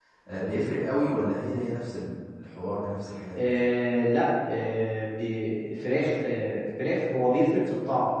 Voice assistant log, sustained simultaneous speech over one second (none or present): none